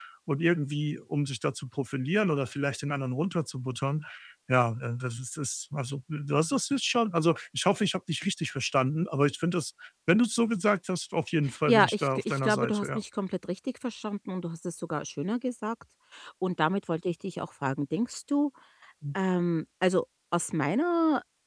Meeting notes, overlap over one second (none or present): present